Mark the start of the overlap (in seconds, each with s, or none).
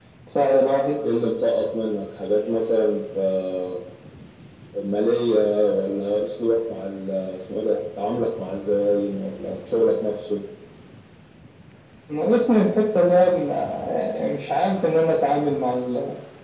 none